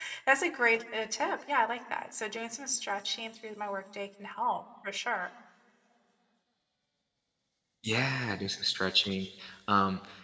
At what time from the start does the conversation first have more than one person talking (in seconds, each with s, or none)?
none